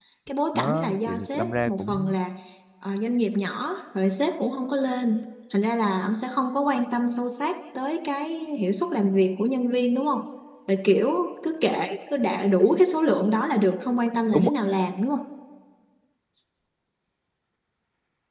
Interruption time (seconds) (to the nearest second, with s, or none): 1 s